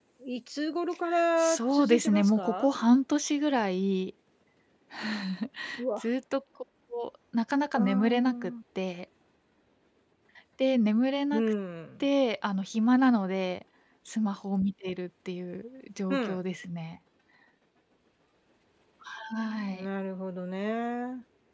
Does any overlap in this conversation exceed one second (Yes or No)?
Yes